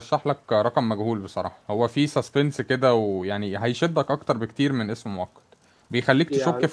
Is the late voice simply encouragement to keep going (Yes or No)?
Yes